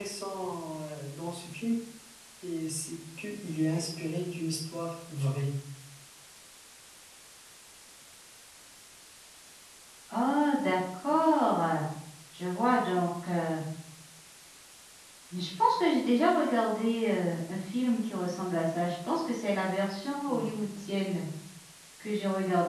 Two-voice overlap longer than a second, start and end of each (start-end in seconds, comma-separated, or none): none